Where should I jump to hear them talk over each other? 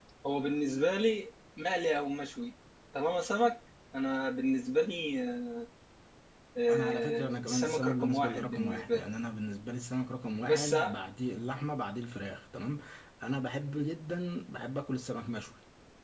7 s

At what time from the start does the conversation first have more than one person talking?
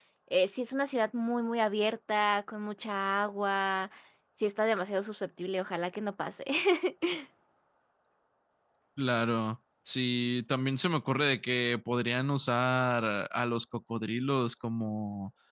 none

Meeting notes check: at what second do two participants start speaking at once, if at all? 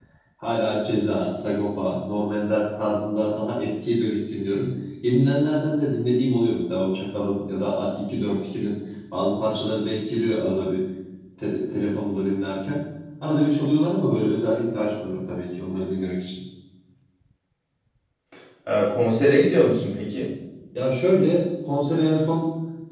none

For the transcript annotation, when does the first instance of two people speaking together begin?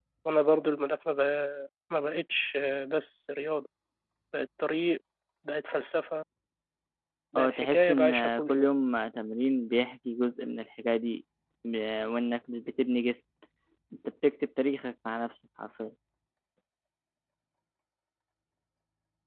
7 s

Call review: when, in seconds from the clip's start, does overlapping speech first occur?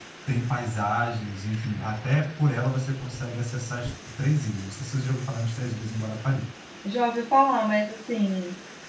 none

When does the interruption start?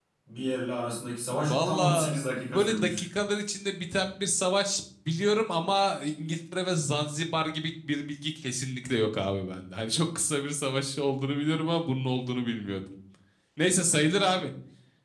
1 s

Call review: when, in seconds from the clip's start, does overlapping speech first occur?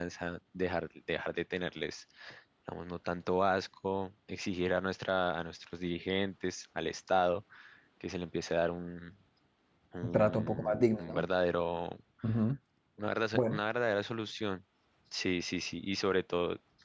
10 s

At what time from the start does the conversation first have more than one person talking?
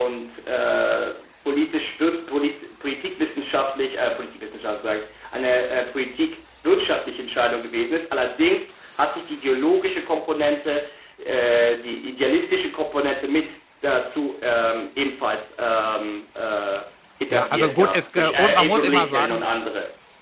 17 s

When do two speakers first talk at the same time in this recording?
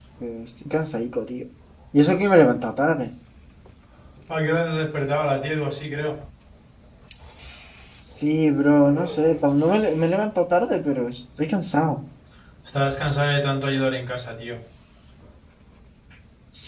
none

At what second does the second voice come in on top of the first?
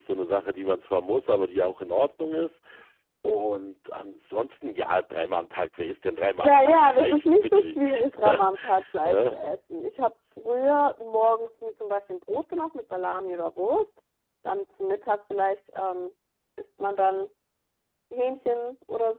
6 s

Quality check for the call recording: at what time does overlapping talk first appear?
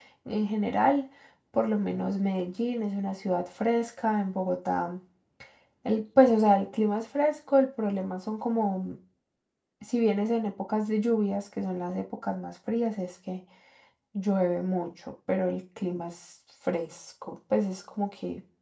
none

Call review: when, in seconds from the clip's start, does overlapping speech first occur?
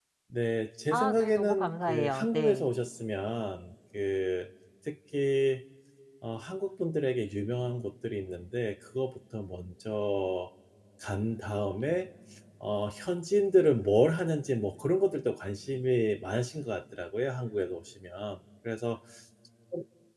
1 s

